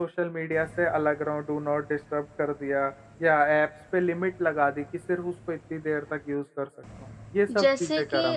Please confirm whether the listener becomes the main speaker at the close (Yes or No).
Yes